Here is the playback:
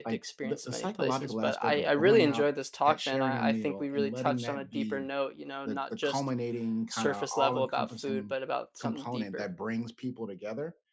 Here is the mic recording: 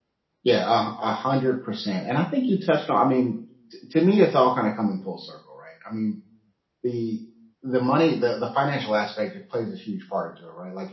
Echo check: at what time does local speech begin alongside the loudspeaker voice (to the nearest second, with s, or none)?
0 s